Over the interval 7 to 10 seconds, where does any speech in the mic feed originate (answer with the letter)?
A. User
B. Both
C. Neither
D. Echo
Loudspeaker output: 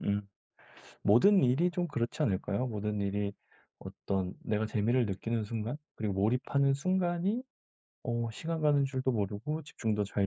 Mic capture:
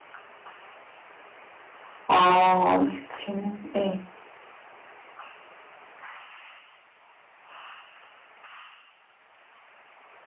C